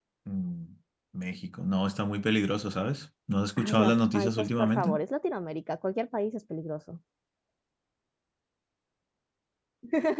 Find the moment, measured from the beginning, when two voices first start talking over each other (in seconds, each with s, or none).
3.6 s